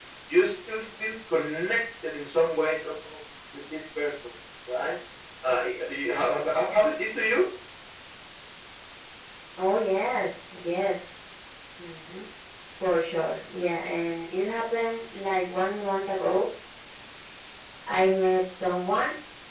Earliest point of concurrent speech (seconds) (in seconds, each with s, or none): none